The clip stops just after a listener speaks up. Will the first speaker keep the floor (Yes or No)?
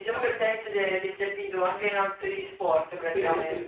No